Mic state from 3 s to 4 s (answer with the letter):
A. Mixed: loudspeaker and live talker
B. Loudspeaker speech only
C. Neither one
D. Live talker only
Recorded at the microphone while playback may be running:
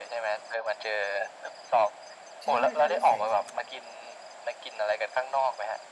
A